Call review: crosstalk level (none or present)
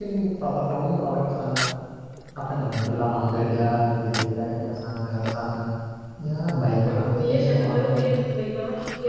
present